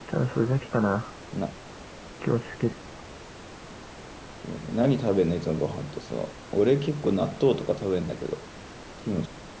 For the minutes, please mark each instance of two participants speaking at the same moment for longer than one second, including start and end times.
none

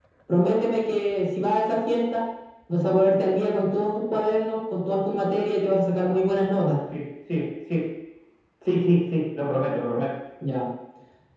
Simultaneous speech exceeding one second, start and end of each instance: none

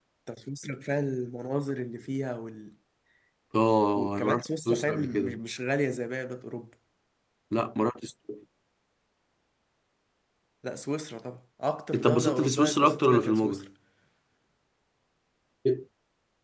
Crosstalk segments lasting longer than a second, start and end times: 4.0-5.4, 11.9-13.7

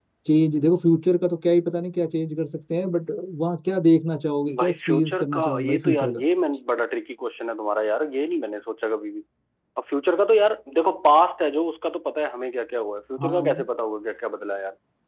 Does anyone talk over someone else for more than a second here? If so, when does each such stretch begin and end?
4.6-6.2

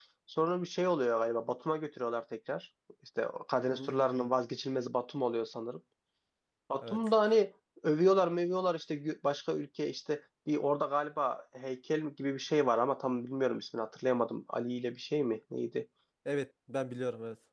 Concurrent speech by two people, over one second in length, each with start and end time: none

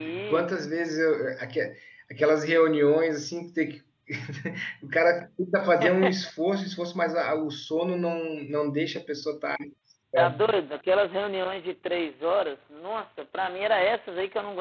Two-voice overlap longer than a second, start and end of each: none

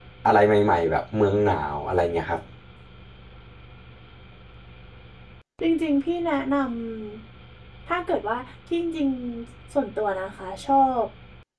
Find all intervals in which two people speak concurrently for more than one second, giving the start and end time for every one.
none

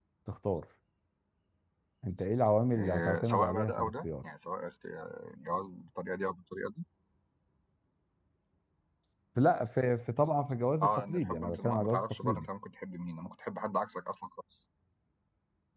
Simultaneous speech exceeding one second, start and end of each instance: 2.8-4.1, 10.8-12.5

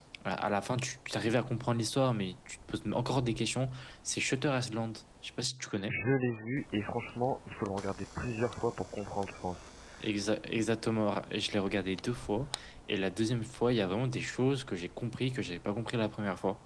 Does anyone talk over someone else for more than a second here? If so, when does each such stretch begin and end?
none

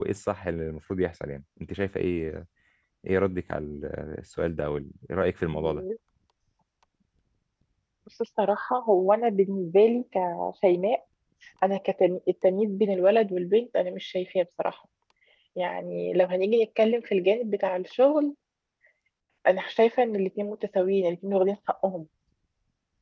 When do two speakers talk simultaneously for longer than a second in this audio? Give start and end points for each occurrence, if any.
none

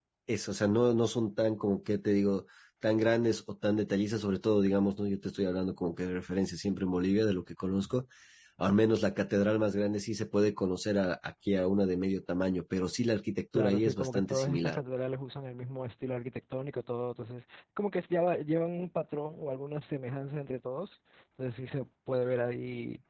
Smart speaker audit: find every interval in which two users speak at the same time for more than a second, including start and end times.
13.6-14.8

